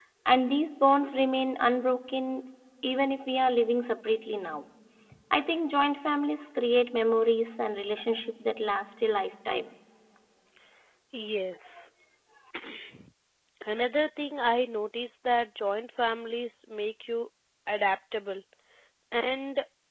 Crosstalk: none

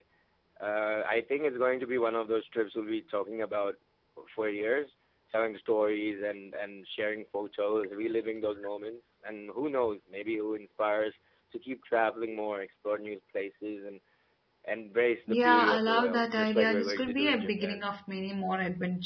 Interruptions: present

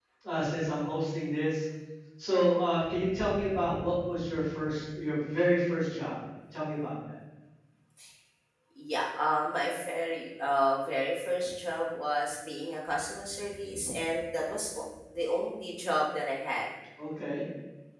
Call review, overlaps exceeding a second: none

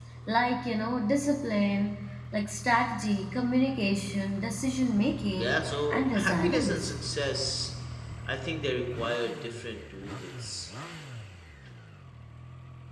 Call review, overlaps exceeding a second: present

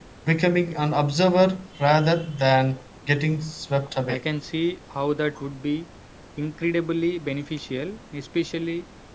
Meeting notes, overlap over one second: none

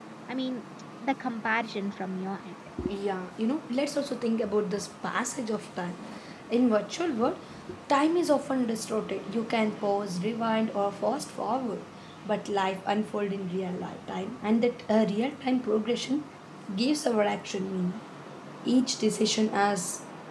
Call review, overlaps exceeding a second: none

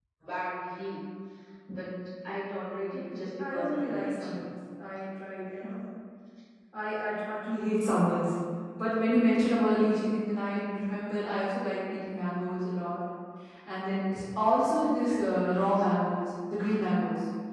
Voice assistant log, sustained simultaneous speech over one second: present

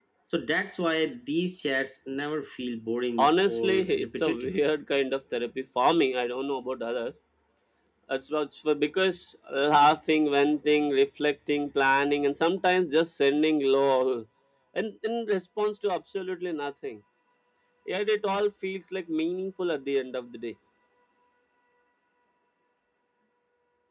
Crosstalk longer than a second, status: present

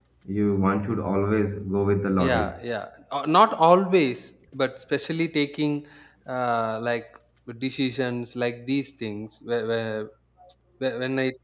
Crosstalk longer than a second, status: none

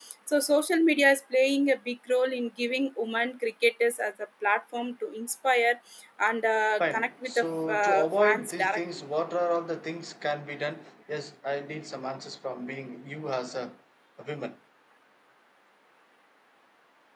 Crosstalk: present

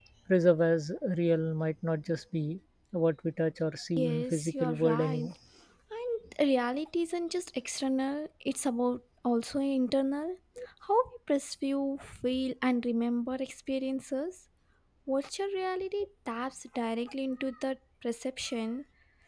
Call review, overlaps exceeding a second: present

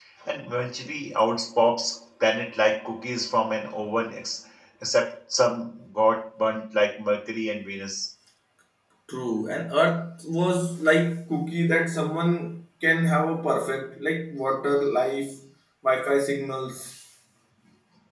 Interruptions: none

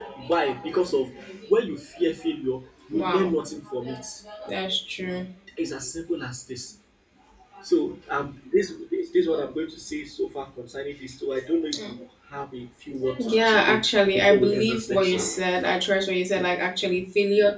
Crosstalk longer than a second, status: present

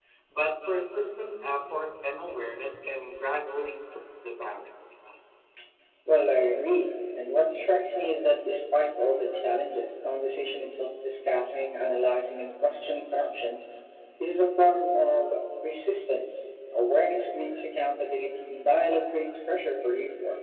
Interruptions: none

